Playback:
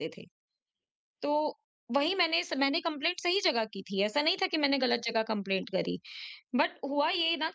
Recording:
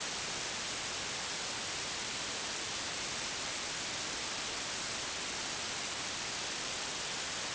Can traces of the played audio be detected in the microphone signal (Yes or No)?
No